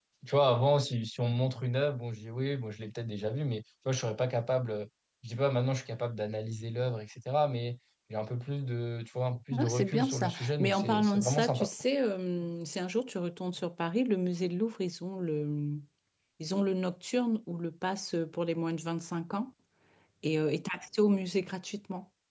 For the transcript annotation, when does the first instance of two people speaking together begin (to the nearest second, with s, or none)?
10 s